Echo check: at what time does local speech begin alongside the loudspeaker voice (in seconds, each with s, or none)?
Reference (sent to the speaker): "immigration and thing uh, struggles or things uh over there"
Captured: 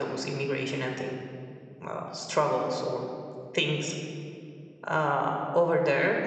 none